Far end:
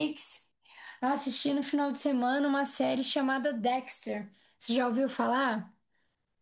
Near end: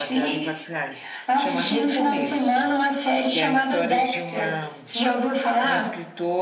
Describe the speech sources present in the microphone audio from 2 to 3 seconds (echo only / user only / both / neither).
both